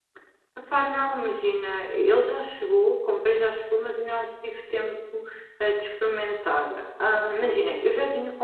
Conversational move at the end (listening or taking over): listening